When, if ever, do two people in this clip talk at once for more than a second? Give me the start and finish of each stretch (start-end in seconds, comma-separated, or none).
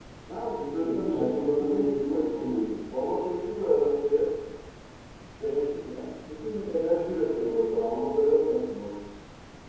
0.8-2.5